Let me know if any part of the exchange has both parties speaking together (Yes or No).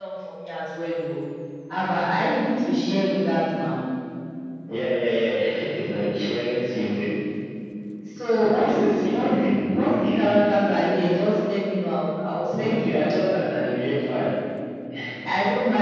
Yes